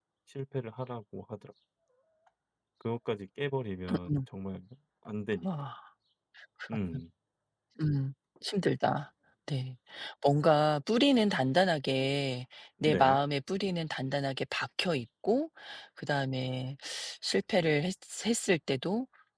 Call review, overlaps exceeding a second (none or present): none